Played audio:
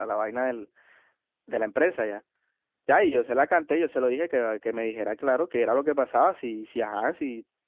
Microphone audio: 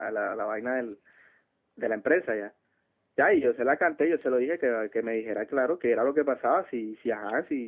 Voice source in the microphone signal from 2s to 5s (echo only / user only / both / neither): echo only